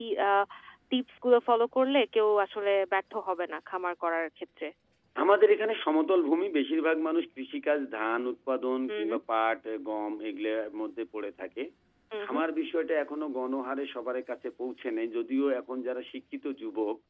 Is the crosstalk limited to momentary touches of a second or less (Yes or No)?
Yes